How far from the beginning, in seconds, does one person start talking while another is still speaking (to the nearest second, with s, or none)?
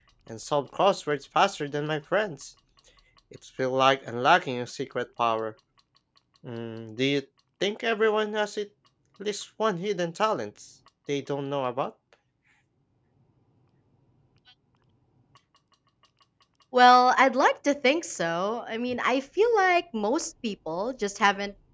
none